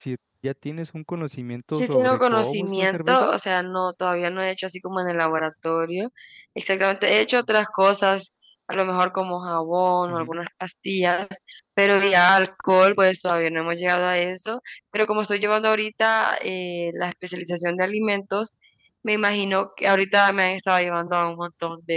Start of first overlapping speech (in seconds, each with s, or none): 1.7 s